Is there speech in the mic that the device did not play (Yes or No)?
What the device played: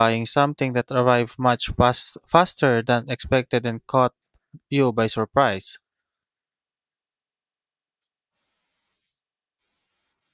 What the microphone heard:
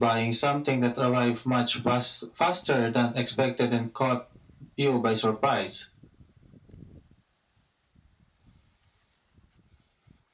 No